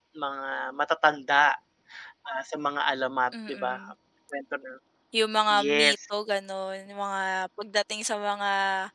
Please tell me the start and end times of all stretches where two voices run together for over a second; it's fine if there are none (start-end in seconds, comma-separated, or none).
none